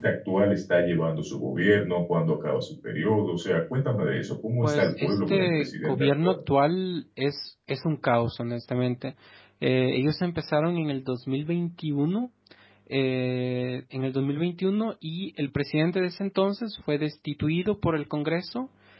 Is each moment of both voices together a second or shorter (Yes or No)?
No